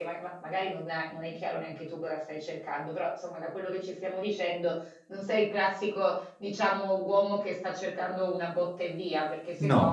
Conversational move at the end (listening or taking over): listening